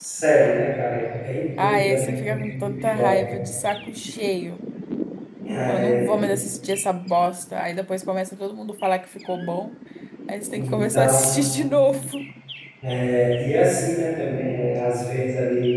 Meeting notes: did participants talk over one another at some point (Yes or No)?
Yes